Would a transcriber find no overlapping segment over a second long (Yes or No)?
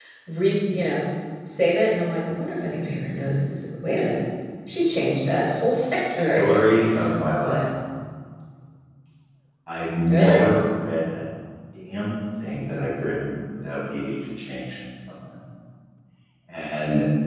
Yes